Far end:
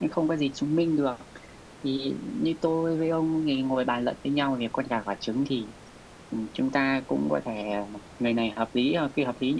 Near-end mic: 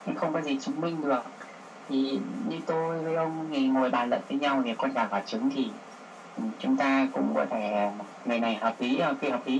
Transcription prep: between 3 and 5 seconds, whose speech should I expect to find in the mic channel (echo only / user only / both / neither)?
echo only